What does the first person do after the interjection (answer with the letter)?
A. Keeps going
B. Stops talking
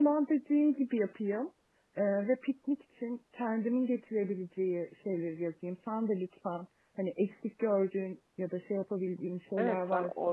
B